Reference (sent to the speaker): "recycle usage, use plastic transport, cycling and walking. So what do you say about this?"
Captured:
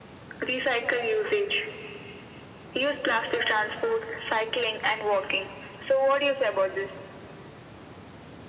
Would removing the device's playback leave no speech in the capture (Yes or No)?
Yes